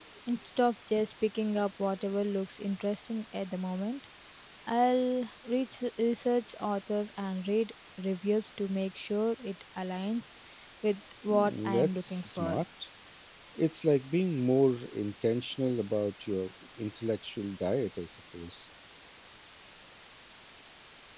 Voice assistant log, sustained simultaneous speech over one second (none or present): present